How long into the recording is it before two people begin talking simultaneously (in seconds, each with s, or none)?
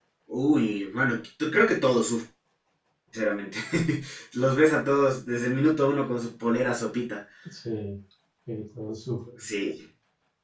none